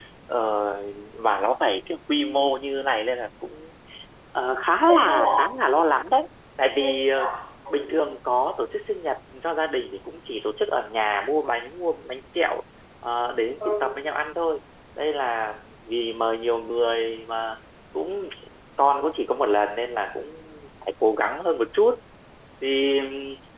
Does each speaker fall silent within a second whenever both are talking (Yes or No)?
Yes